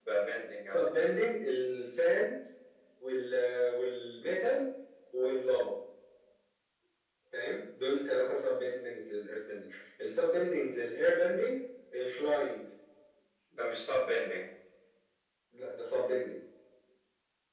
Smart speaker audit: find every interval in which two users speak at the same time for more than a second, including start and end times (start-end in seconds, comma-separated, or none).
none